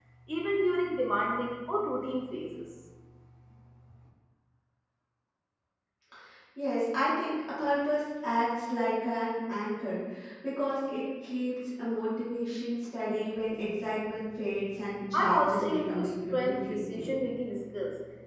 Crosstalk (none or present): present